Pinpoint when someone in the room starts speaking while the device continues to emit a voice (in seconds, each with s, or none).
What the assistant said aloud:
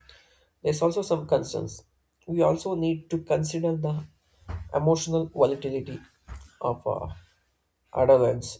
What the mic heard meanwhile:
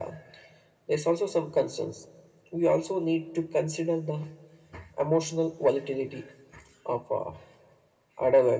none